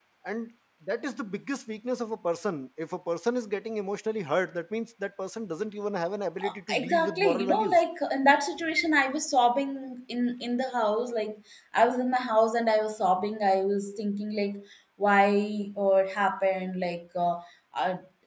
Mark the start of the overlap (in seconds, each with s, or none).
6.4 s